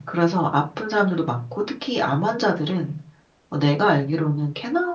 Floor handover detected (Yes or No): No